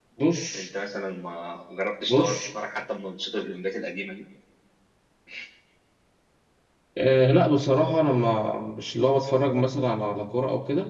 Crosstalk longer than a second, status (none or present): none